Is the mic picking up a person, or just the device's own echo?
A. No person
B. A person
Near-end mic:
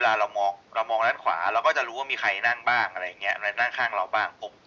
A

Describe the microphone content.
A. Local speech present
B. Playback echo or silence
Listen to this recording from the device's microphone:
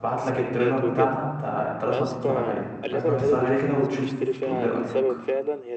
A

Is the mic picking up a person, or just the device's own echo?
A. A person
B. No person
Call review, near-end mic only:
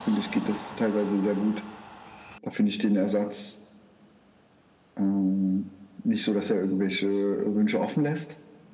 B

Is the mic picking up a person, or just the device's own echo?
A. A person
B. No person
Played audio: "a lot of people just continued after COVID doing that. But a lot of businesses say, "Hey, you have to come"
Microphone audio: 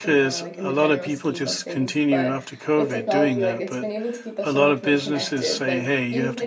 A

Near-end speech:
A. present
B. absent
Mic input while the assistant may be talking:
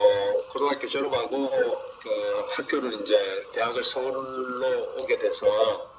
B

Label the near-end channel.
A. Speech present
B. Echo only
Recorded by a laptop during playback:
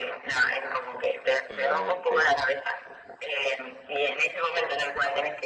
A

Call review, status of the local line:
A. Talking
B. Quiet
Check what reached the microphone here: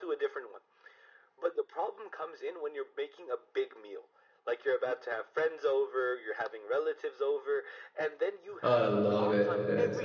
A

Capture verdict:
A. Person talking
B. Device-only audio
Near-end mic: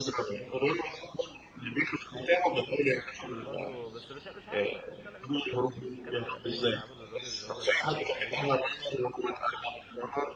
A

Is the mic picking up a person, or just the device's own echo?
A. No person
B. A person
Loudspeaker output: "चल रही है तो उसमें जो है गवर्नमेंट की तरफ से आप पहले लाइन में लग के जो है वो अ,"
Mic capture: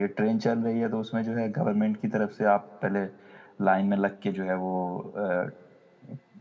A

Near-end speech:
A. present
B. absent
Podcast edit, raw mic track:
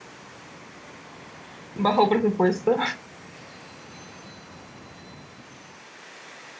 A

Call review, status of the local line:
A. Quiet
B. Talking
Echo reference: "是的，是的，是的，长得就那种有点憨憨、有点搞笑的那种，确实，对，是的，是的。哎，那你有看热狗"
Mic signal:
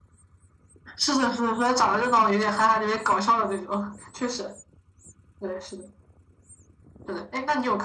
A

